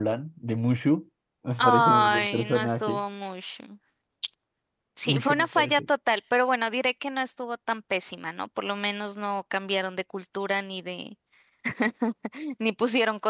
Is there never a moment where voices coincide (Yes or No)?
No